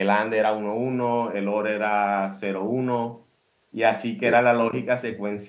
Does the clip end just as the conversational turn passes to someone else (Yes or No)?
No